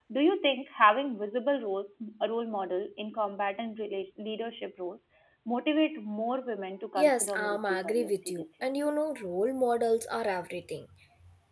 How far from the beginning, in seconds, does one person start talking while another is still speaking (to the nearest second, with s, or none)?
7 s